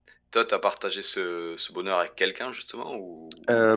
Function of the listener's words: taking over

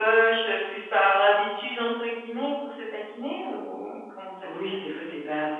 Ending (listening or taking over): taking over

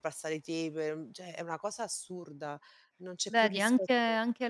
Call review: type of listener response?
taking over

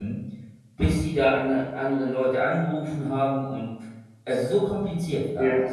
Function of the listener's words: taking over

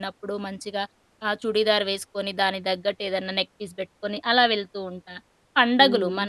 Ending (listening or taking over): listening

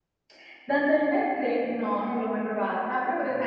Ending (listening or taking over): listening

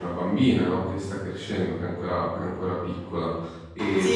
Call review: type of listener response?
taking over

